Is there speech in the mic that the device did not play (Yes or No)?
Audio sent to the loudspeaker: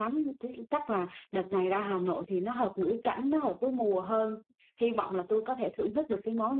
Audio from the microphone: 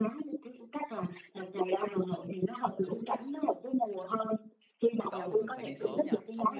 Yes